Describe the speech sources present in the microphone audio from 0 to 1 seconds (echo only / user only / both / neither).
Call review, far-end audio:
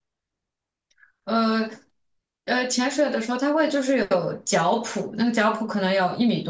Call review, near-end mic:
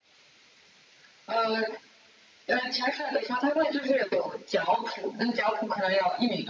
neither